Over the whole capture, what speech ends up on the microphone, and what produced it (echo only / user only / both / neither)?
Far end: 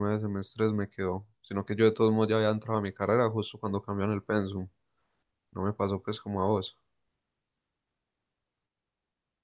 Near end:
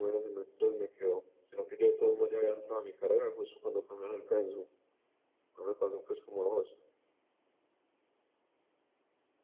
echo only